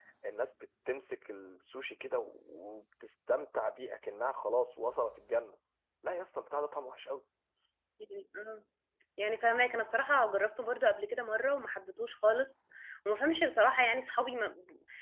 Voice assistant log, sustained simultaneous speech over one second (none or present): none